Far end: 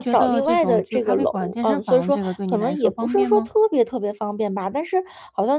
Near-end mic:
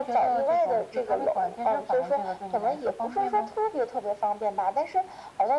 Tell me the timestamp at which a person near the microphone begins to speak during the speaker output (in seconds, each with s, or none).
none